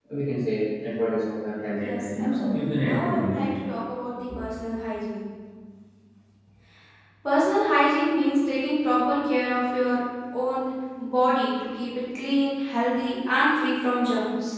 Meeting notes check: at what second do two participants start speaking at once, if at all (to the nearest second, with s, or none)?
2 s